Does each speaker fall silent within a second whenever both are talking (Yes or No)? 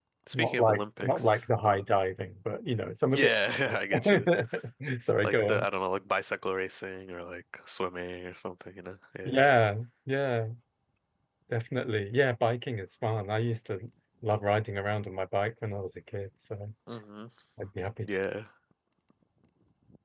No